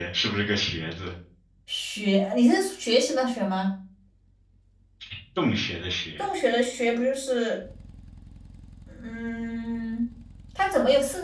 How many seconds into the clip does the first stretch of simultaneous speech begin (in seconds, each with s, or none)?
none